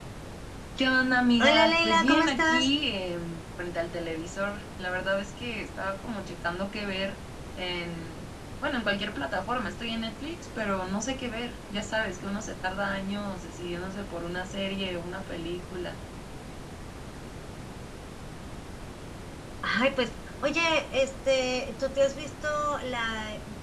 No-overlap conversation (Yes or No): No